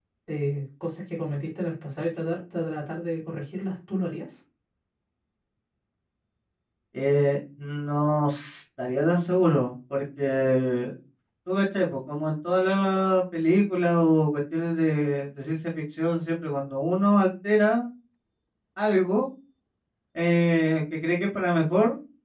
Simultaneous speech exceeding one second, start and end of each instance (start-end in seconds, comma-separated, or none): none